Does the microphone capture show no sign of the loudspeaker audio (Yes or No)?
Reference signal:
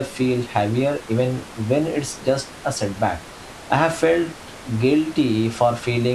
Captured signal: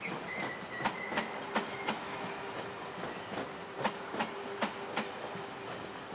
Yes